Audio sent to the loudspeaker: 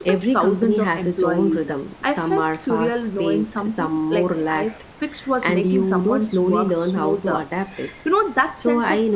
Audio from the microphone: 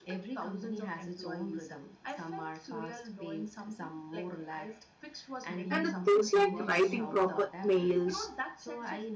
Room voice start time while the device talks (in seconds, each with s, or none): 5.7 s